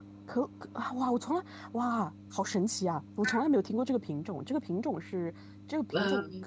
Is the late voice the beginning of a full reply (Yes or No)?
No